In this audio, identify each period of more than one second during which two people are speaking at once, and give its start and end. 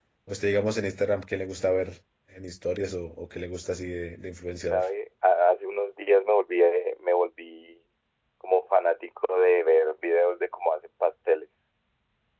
none

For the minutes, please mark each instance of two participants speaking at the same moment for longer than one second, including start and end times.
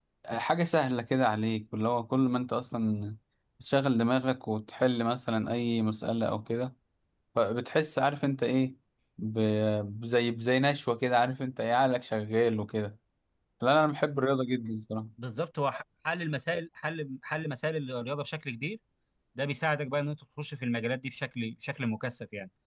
none

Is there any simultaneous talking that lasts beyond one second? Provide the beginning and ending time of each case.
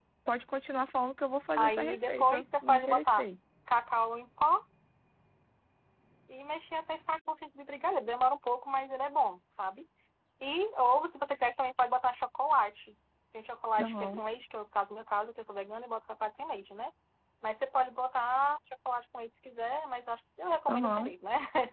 1.5-3.2

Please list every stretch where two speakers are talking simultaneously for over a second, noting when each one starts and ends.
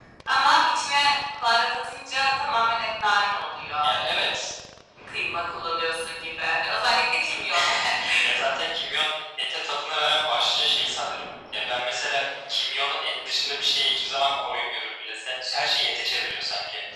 none

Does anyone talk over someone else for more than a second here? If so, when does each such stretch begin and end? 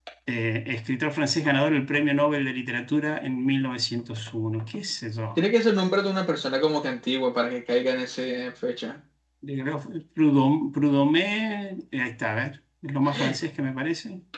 none

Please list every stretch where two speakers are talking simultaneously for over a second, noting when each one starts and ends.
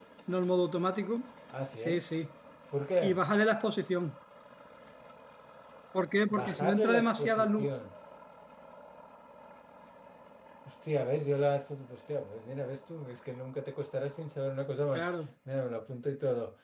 6.4-7.7

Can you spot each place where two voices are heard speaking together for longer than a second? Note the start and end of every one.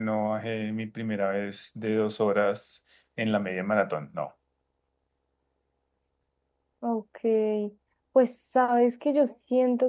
none

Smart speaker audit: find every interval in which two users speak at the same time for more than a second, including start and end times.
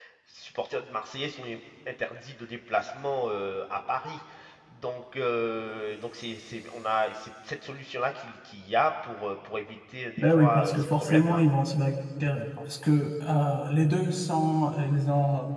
10.2-11.4

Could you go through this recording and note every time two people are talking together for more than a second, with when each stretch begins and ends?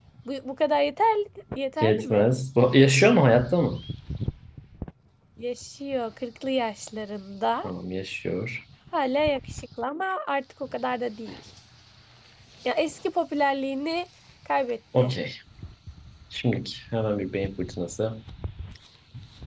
none

